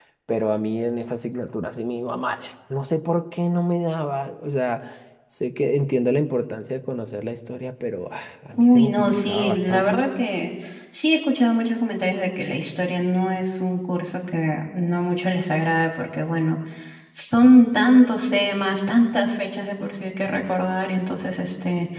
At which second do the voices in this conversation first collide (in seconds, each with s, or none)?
8.5 s